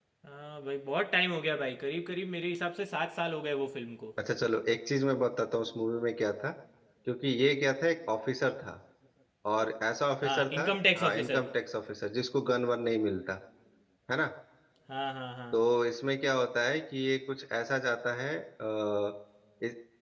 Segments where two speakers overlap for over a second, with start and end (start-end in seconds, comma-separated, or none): 10.2-11.5